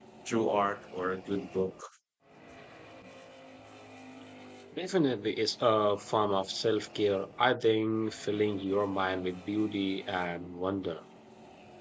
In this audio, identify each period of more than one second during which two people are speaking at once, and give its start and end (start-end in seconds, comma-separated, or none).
none